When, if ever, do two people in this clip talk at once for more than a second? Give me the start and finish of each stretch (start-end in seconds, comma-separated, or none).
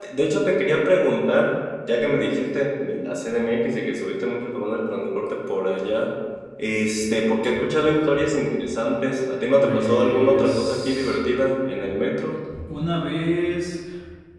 9.6-11.2